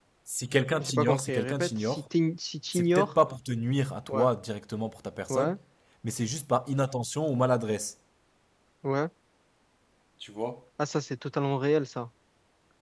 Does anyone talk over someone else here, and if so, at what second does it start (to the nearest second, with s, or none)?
1 s